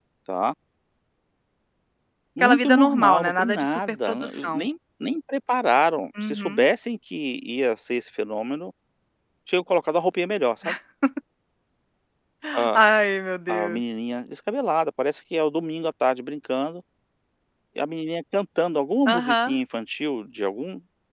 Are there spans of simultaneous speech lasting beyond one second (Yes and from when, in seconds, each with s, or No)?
Yes, from 2.4 s